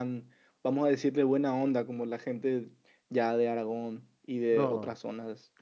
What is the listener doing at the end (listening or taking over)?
taking over